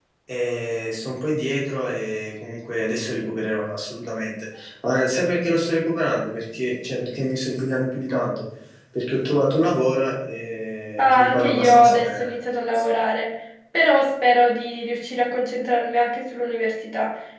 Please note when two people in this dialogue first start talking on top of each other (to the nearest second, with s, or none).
11 s